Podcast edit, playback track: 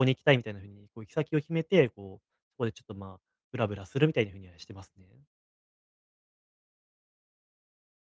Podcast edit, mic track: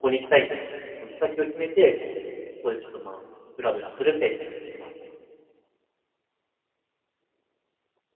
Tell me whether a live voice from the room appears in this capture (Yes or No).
No